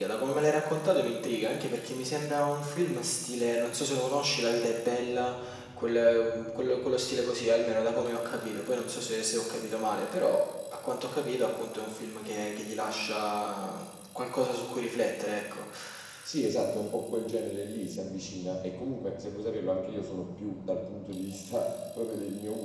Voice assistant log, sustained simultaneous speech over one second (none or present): none